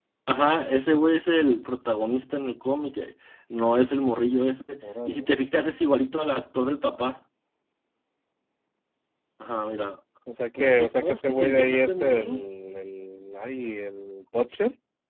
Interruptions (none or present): present